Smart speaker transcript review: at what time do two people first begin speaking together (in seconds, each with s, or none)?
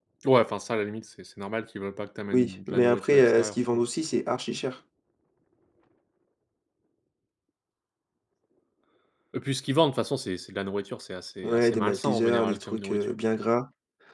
2.3 s